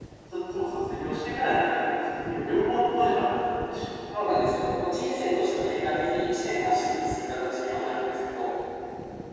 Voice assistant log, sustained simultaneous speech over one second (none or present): none